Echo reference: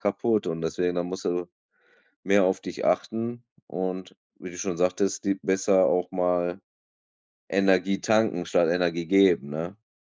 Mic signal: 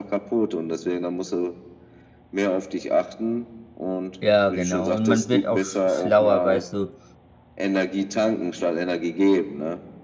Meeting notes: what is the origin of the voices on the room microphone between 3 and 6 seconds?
both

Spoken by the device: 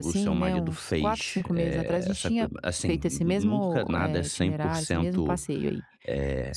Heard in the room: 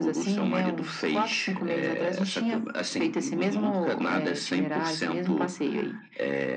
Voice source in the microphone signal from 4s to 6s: echo only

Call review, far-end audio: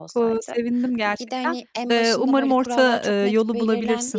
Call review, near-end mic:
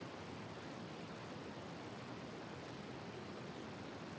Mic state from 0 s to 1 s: neither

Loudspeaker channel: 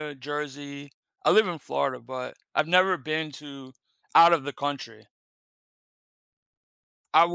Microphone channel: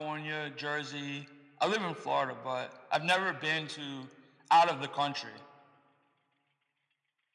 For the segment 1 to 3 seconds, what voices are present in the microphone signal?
echo only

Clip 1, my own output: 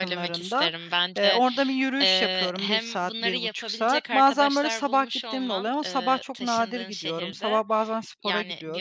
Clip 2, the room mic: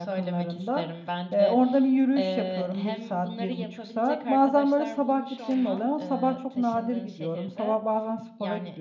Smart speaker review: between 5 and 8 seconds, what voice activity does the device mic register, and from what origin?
echo only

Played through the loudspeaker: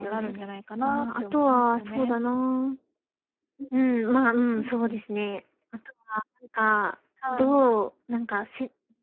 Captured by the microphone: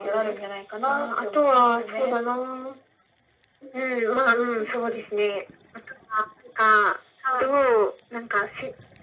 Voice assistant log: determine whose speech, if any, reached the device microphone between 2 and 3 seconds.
echo only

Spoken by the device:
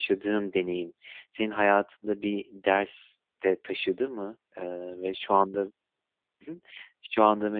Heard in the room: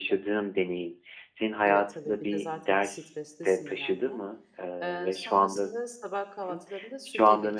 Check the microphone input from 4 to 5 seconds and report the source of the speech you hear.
both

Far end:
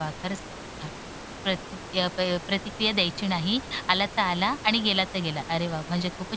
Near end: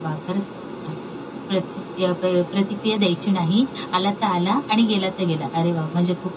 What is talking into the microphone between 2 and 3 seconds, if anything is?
echo only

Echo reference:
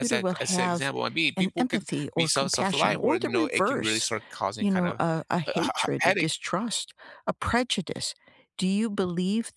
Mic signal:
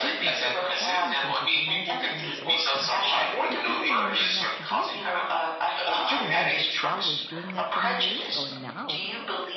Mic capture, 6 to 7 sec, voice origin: both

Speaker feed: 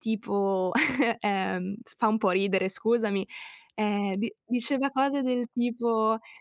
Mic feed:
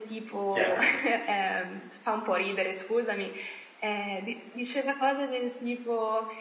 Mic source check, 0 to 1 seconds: both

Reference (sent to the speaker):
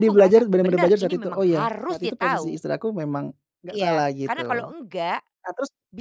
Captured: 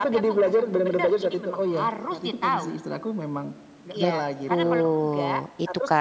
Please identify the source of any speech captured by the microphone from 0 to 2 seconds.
echo only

